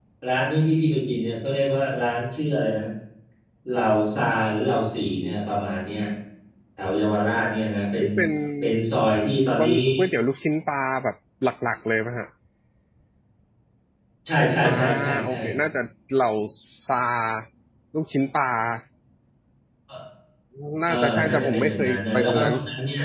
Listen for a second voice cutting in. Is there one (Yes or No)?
Yes